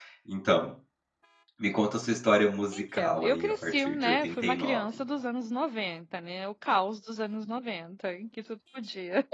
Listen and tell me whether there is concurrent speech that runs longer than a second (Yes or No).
Yes